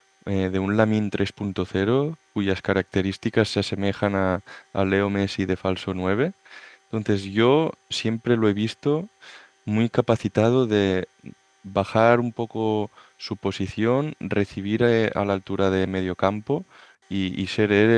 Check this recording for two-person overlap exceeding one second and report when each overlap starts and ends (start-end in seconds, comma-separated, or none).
none